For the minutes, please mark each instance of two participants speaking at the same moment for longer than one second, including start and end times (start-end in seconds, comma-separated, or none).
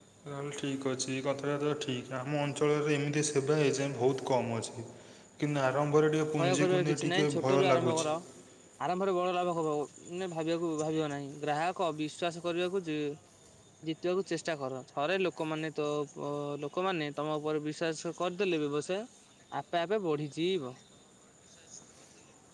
6.4-8.1